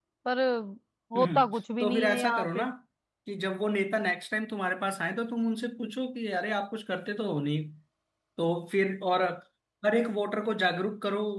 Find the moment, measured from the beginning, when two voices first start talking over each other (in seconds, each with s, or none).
1.2 s